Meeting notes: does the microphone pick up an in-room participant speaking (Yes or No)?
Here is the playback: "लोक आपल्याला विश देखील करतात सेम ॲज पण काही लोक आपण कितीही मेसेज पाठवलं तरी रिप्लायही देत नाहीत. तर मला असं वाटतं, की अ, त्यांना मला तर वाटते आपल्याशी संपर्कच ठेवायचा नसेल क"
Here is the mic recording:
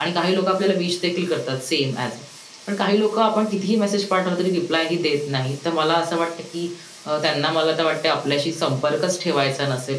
No